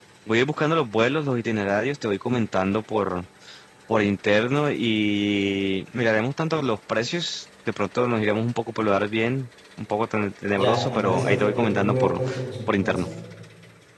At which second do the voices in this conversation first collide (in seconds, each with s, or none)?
10.6 s